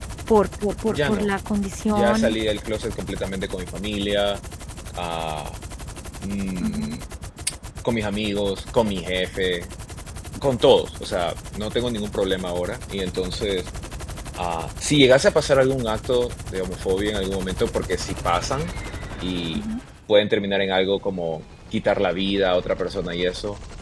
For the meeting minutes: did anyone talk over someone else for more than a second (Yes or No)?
No